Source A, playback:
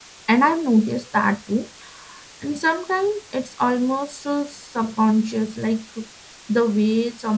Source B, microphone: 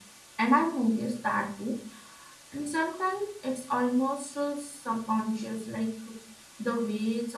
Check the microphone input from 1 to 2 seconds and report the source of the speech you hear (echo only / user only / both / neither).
echo only